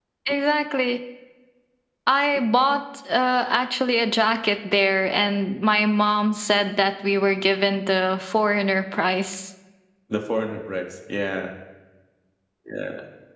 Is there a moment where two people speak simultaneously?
No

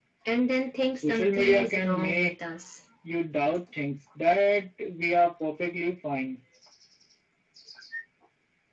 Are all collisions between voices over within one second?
No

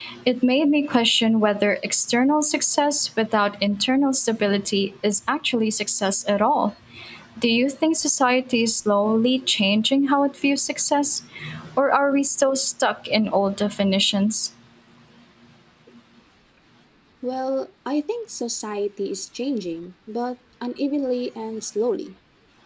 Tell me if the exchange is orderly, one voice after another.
Yes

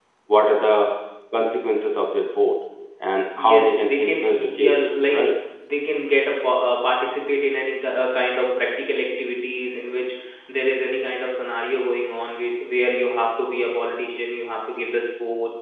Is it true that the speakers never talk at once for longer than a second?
No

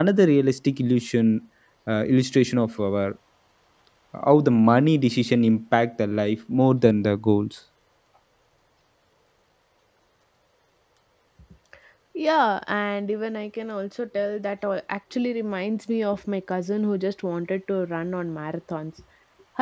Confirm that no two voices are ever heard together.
Yes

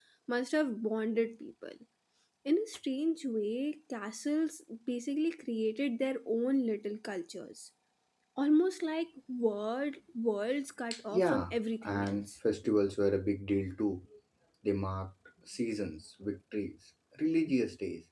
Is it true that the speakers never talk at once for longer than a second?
No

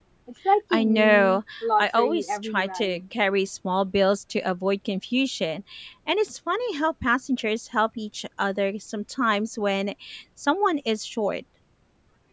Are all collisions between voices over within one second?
No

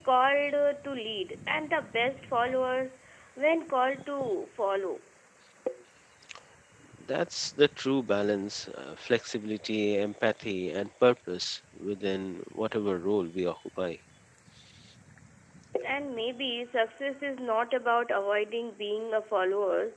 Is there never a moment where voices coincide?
Yes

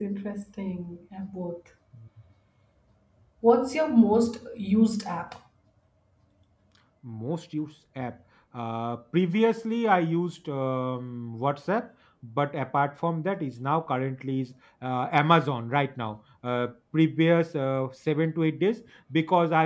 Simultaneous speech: No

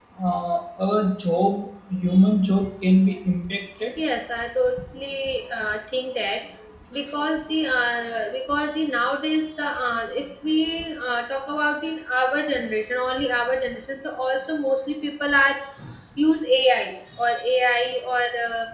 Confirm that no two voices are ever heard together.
Yes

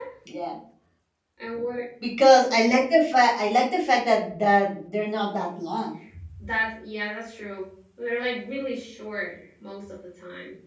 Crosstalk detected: No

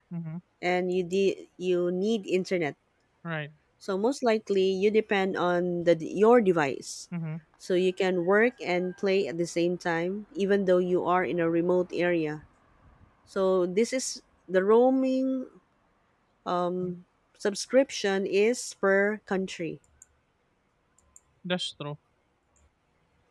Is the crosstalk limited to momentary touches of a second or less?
Yes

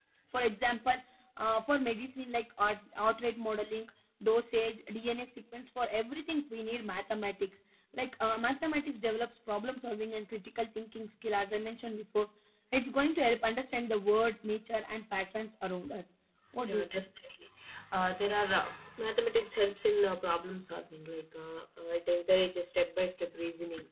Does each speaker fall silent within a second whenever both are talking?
Yes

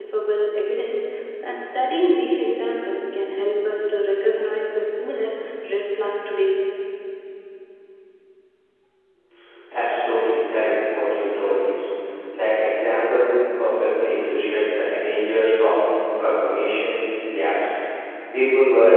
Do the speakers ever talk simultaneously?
No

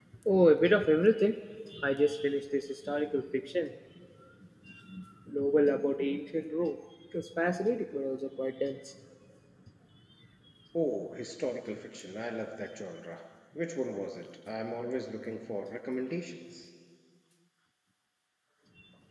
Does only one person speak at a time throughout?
Yes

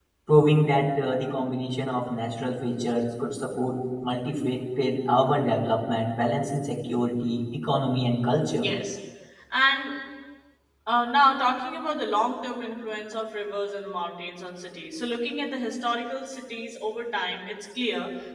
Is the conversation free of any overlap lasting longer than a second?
Yes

